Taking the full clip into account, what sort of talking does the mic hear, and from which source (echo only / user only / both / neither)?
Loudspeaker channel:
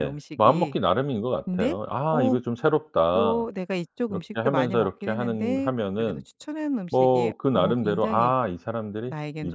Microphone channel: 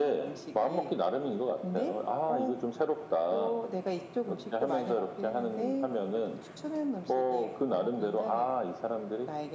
echo only